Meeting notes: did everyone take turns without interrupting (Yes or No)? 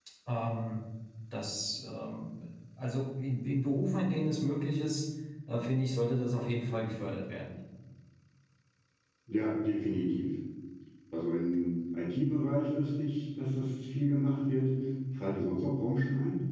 Yes